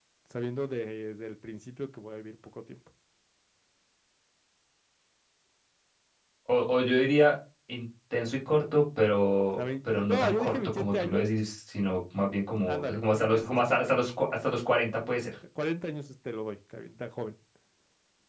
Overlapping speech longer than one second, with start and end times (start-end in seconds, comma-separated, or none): 9.6-11.3, 12.7-13.9